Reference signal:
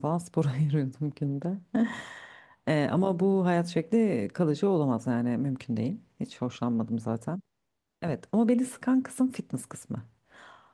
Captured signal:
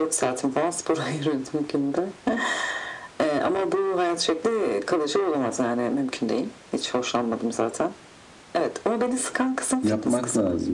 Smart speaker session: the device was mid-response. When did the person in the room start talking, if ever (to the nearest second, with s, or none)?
10 s